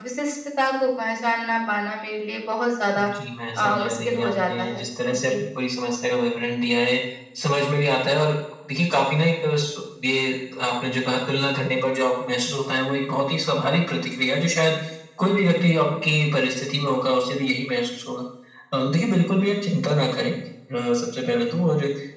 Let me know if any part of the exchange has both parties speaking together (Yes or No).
Yes